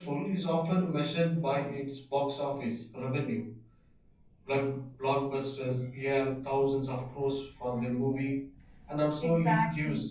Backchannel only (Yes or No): Yes